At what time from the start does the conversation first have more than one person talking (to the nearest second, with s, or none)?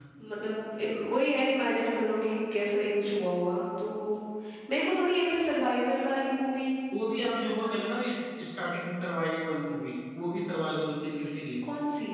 none